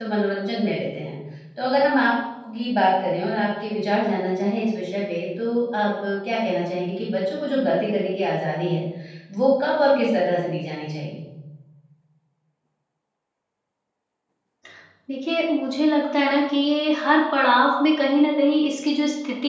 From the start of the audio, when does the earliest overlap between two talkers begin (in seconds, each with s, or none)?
none